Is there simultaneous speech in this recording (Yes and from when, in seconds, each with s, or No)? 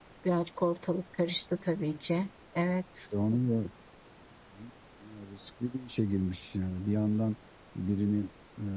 No